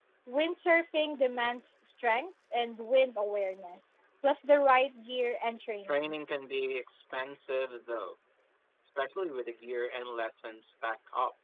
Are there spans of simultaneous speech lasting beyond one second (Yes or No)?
No